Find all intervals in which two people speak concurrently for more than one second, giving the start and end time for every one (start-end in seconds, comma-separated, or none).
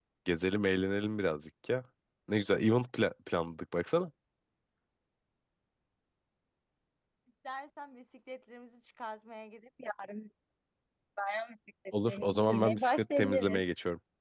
12.1-13.6